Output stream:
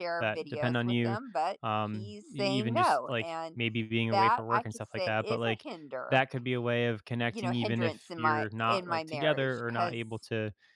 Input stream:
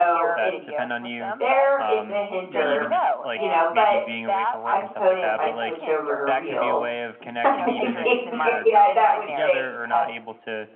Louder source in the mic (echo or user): user